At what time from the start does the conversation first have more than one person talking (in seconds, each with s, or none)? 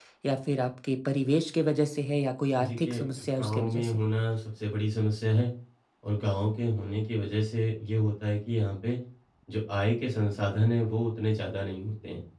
2.6 s